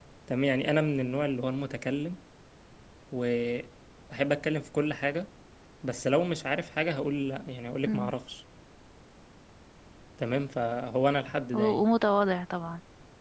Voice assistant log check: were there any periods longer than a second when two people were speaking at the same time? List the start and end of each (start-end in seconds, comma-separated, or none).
none